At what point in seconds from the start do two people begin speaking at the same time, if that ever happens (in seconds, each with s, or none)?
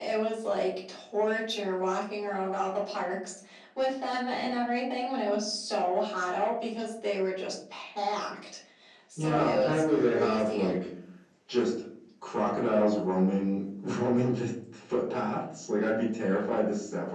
9.2 s